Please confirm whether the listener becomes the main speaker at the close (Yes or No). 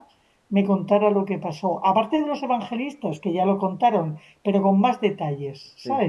Yes